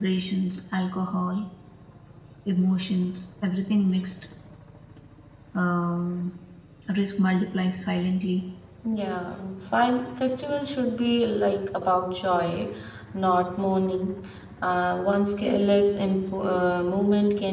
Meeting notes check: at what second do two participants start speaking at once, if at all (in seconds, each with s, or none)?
none